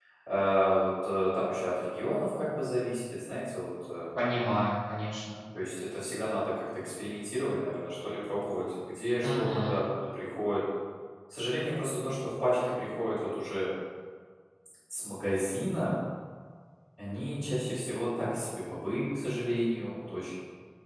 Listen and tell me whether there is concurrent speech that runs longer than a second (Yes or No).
No